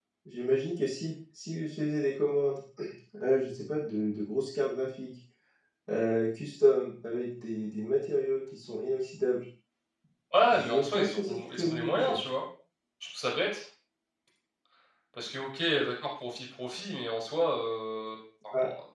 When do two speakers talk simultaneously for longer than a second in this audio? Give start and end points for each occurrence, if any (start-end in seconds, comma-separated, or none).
10.5-12.2